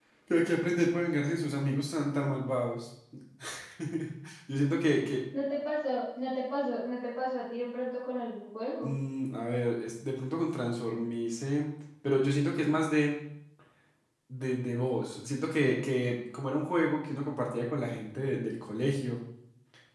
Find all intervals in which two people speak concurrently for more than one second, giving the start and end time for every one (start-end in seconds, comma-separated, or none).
none